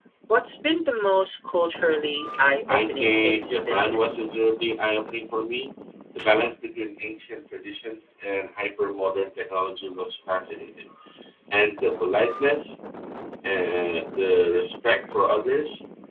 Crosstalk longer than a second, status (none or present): present